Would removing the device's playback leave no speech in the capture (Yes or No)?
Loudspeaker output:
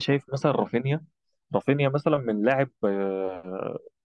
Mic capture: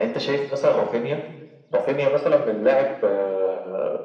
Yes